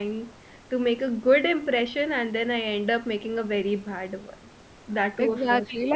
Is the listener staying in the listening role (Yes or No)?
No